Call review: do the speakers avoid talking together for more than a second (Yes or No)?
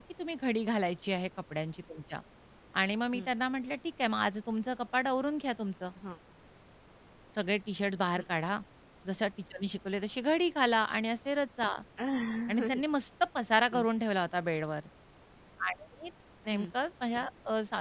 Yes